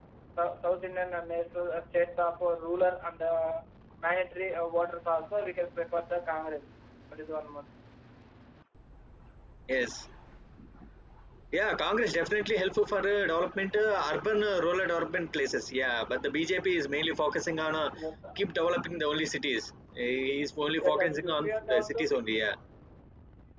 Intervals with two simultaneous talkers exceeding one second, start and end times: 20.8-22.1

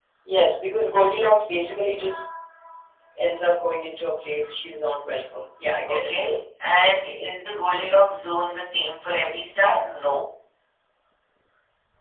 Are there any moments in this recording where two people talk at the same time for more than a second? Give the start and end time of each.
none

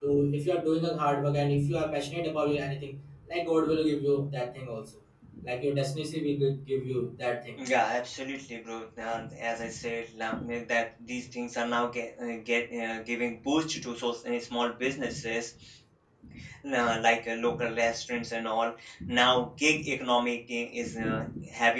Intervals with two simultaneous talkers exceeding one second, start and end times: none

